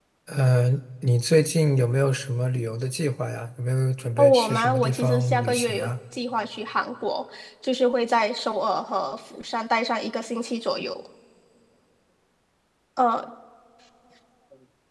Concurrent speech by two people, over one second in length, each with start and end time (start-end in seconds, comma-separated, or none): 4.2-5.9